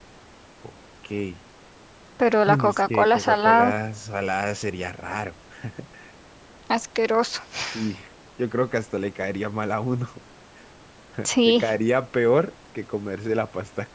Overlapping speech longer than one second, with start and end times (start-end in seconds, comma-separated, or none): 2.5-3.7